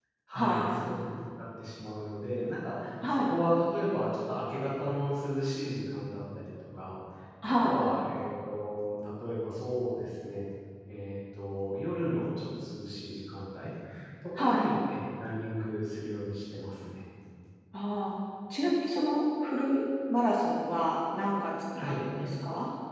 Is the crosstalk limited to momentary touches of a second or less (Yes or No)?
Yes